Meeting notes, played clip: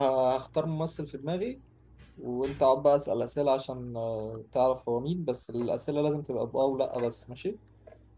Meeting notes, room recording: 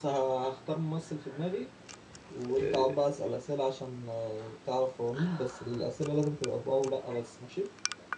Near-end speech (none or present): present